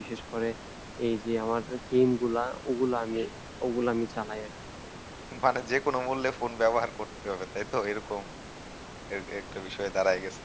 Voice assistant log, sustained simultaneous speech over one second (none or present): none